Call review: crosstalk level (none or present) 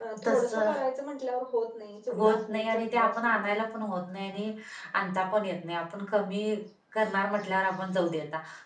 present